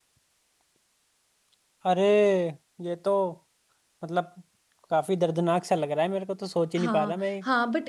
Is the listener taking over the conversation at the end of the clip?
Yes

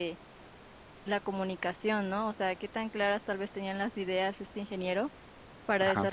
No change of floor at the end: Yes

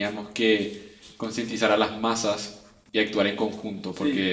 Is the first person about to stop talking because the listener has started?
No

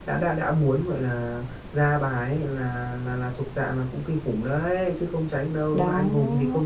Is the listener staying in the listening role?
Yes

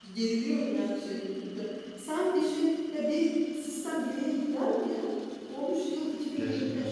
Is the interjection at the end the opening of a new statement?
No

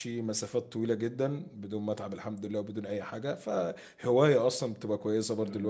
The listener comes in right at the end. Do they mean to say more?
Yes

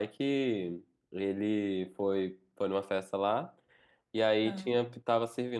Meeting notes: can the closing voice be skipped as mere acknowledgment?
Yes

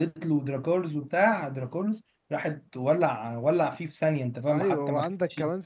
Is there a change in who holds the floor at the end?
Yes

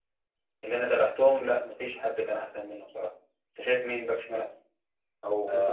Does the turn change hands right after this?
Yes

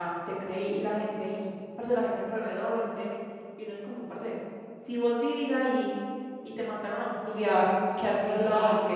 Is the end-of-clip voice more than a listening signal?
Yes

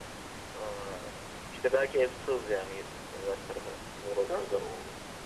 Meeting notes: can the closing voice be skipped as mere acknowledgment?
No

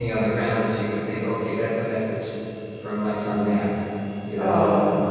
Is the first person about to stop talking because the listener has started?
Yes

